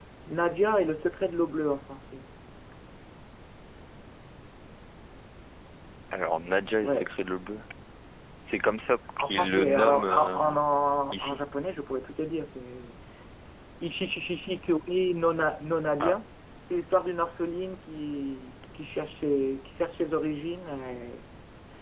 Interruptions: present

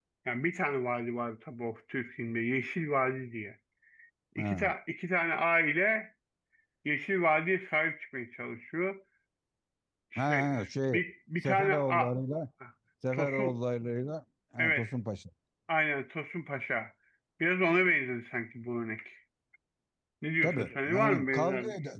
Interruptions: present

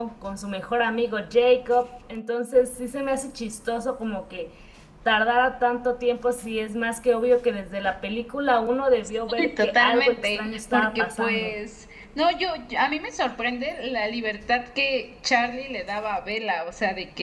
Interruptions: present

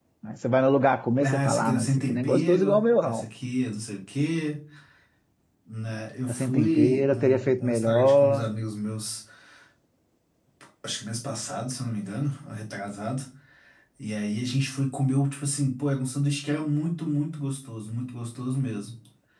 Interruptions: present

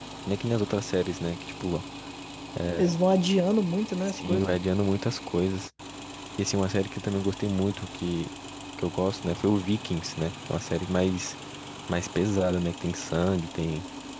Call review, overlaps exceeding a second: none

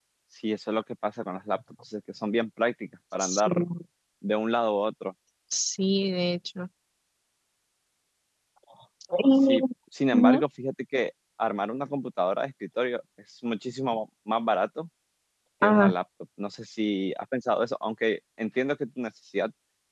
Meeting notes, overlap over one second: none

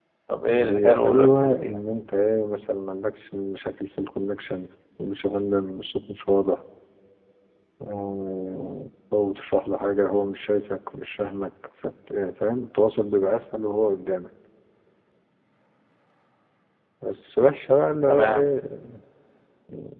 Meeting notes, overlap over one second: present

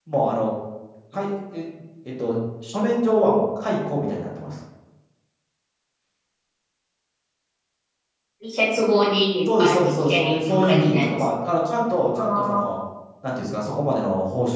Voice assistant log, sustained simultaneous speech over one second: present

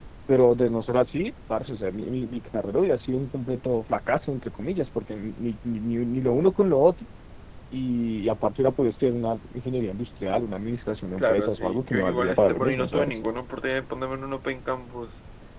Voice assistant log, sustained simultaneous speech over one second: present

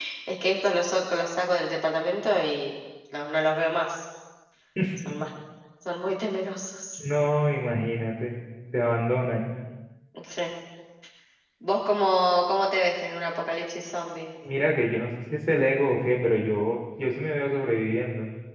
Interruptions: none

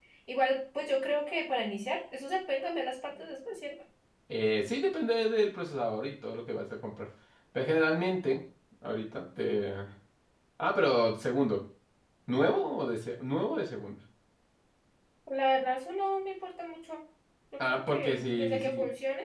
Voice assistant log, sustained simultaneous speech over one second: present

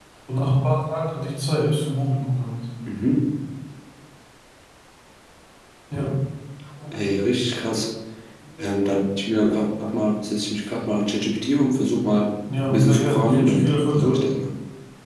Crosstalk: present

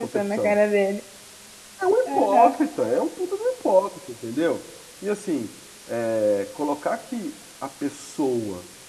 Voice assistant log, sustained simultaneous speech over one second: none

